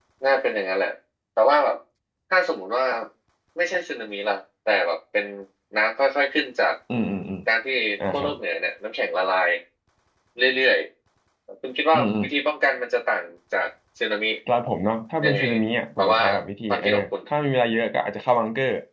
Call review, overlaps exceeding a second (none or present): none